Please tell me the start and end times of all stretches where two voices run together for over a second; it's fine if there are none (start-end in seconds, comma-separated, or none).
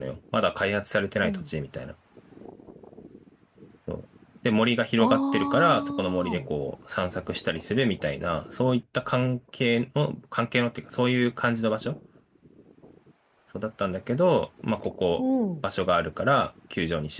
5.0-6.5